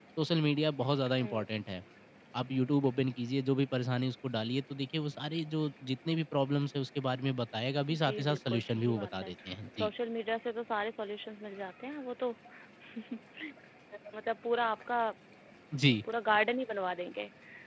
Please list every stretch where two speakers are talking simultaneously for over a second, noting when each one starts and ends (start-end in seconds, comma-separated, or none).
7.9-9.3